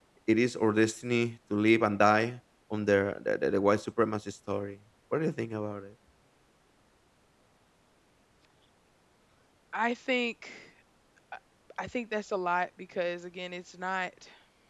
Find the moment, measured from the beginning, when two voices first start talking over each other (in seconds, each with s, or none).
none